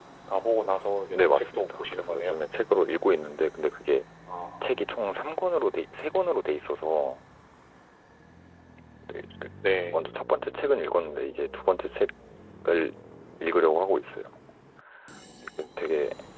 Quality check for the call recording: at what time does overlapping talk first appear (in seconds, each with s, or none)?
1.1 s